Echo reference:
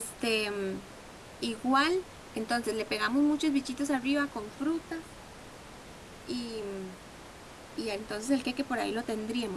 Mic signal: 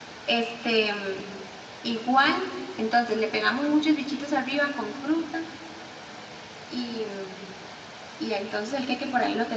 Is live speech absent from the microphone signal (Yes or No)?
Yes